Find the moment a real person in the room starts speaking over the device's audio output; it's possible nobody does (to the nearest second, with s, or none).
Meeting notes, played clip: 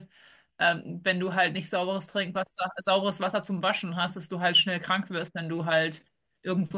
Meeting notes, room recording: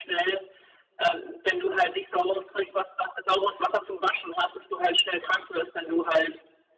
none